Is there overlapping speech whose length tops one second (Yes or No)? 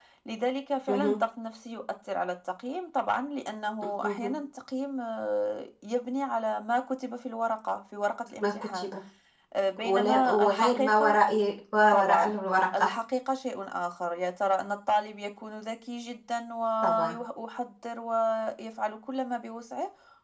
Yes